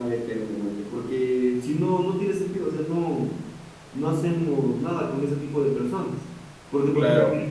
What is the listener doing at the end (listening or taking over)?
listening